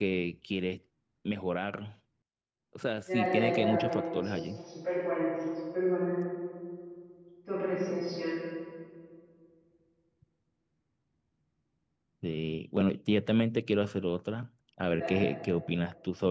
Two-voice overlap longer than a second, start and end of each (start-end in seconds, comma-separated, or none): 3.1-4.6